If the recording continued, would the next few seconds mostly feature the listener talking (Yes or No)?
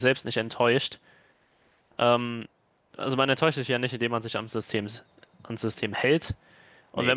No